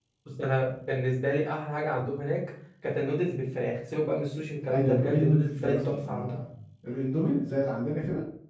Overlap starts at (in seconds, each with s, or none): 4.7 s